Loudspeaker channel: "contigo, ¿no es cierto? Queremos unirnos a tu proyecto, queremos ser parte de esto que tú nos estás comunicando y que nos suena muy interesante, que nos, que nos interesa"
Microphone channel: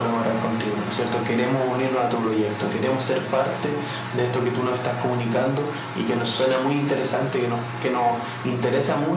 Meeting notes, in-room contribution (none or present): none